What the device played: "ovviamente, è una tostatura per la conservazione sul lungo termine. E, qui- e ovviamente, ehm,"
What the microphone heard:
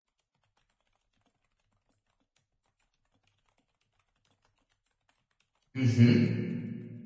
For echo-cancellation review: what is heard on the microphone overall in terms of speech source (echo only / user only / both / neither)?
user only